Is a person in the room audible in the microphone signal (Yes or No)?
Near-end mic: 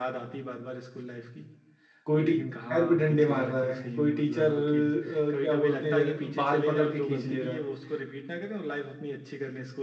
Yes